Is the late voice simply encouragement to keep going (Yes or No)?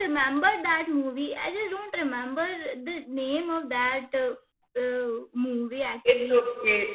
No